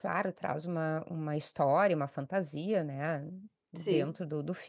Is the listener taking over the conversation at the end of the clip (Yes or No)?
No